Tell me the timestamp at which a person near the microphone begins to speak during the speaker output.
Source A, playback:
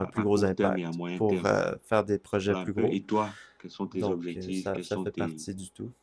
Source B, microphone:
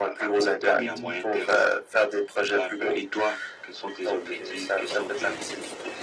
0.8 s

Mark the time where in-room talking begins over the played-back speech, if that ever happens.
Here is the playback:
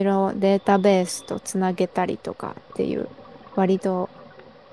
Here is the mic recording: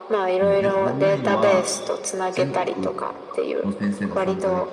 0.4 s

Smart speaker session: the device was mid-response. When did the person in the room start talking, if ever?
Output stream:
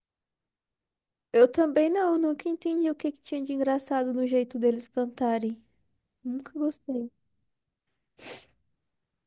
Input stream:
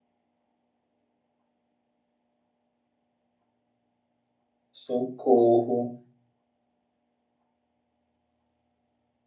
4.7 s

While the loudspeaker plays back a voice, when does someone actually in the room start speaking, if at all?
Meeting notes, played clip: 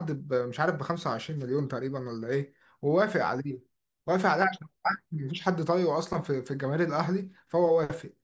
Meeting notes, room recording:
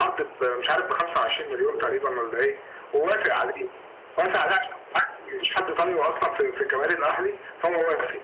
1.6 s

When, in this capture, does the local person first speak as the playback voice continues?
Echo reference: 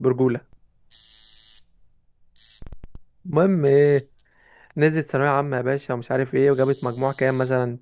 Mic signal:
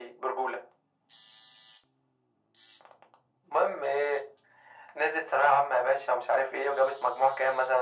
none

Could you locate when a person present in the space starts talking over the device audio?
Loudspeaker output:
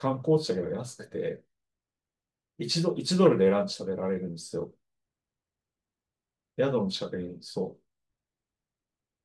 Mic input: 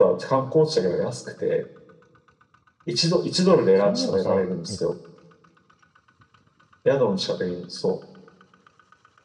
3.7 s

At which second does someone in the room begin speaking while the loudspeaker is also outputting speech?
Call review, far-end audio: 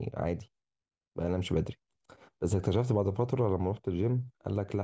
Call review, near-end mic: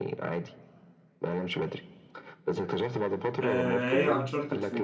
3.4 s

